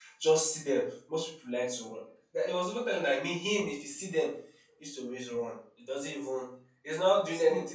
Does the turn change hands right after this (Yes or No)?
No